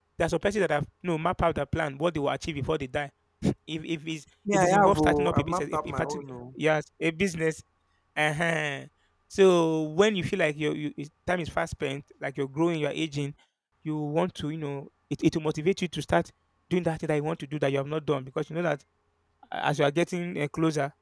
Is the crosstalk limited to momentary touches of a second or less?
No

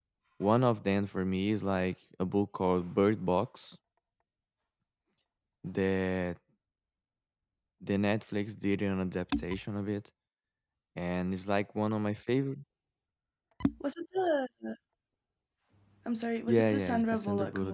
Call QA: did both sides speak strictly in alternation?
No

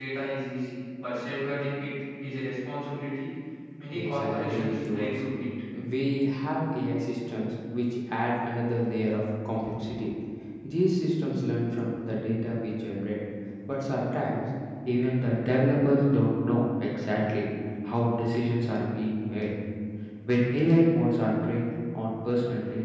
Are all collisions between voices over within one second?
No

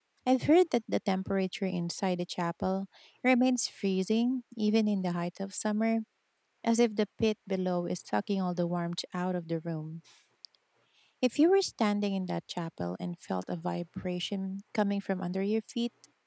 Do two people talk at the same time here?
No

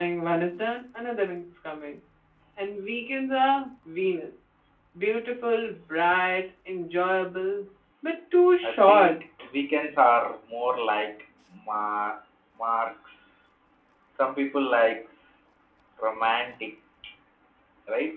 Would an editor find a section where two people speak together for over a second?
No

